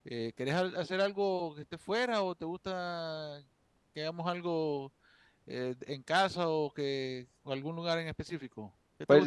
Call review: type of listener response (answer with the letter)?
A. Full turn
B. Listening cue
A